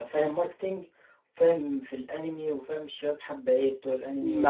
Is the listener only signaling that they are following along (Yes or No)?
No